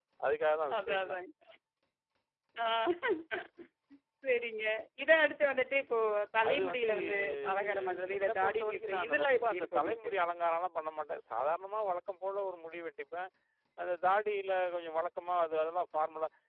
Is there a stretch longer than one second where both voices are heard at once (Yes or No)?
Yes